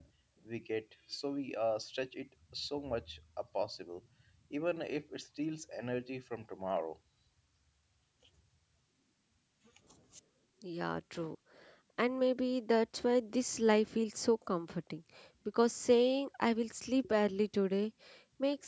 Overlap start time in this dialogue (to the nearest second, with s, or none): none